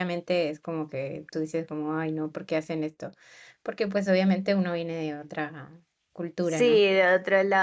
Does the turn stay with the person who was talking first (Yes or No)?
No